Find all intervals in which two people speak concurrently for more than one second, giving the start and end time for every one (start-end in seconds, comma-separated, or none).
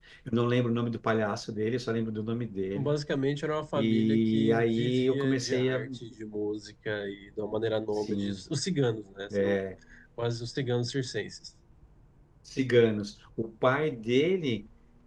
3.8-5.9